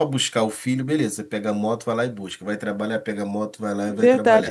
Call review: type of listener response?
taking over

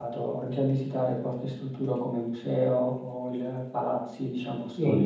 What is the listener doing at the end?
taking over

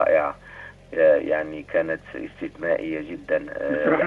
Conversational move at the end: taking over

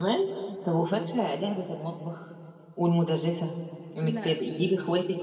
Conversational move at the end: listening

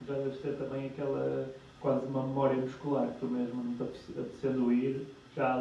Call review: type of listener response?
listening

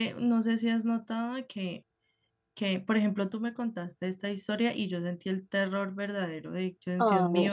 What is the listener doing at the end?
listening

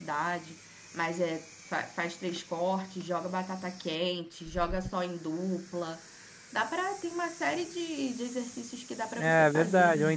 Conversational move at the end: taking over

